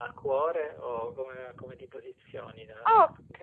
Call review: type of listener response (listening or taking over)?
taking over